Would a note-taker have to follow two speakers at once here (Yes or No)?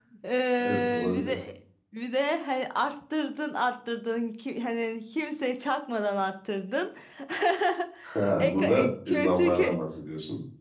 Yes